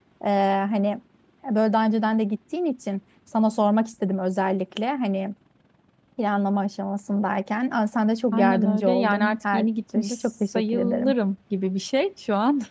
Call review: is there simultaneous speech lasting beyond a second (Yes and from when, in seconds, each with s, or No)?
Yes, from 8.3 s